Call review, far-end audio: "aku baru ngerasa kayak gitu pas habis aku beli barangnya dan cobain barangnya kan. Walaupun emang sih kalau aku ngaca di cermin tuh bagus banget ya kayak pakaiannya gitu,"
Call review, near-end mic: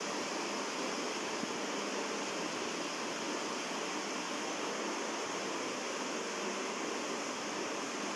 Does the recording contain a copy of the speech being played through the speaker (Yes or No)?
No